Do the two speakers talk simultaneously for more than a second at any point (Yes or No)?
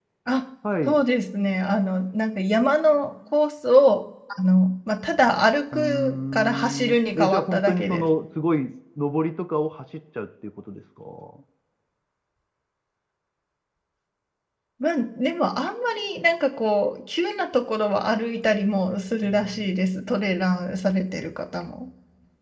Yes